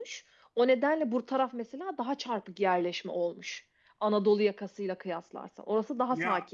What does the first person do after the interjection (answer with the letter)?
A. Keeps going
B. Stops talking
B